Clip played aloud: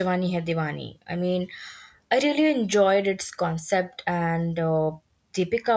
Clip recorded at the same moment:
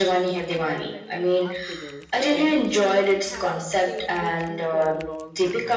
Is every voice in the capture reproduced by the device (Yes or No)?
No